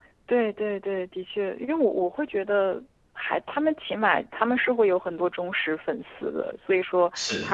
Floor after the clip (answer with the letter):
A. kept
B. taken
A